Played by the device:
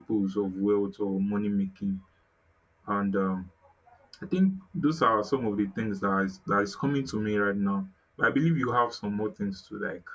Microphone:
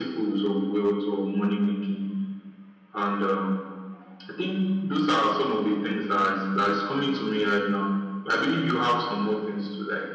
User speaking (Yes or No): No